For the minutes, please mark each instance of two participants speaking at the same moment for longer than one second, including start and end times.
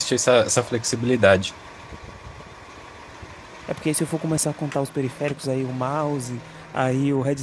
none

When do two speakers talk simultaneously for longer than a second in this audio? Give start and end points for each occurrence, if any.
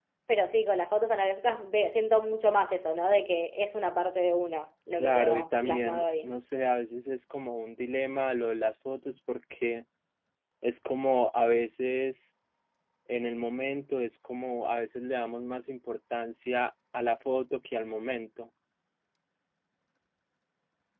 4.9-6.3

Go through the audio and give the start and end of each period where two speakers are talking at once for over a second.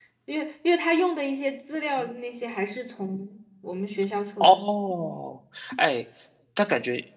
none

